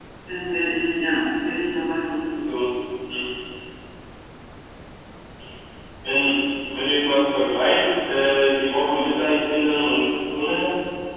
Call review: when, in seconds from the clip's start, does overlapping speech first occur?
none

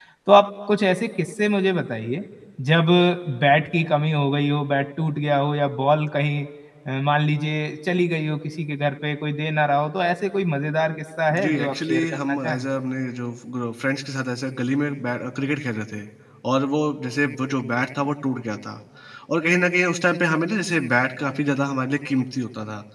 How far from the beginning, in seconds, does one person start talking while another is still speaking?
11.3 s

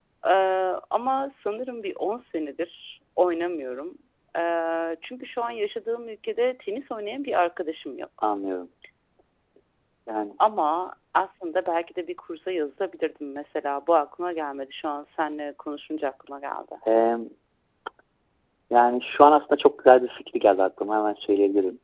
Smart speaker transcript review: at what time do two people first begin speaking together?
none

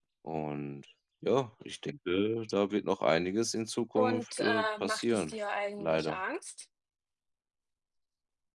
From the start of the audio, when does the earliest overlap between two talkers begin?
4.0 s

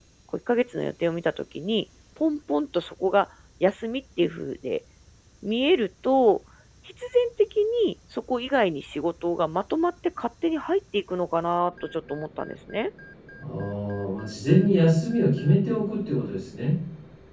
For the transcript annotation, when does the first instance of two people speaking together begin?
none

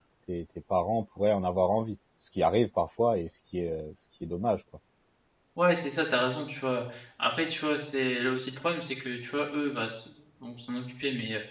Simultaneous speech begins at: none

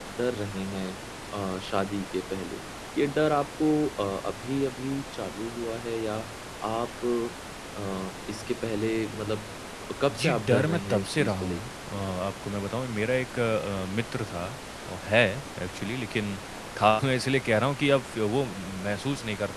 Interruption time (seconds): 10.1 s

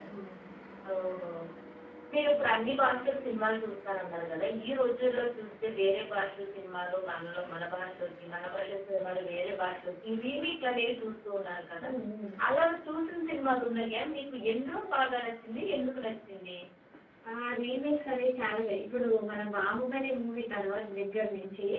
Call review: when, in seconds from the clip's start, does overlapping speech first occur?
none

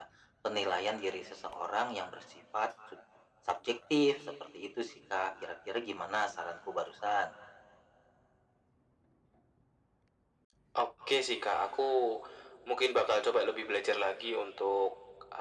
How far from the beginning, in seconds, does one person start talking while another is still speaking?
none

